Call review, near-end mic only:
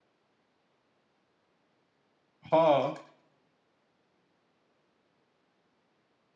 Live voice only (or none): हँ